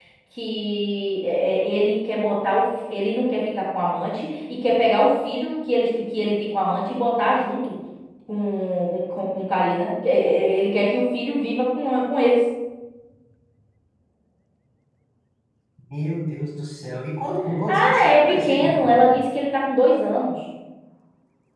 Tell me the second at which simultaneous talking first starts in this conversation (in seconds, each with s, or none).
17.7 s